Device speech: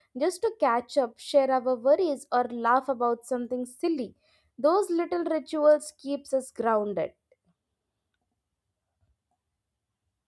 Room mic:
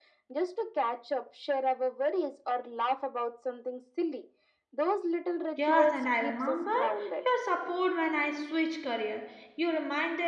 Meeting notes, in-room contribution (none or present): present